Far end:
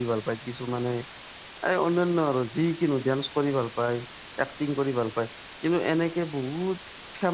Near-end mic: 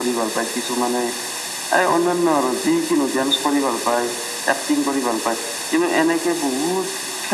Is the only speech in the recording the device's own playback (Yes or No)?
Yes